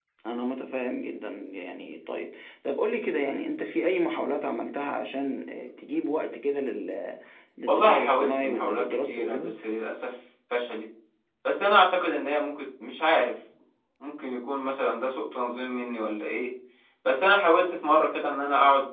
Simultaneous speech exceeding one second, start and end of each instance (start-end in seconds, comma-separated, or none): 7.7-9.5